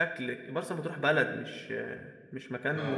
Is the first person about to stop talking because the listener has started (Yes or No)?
Yes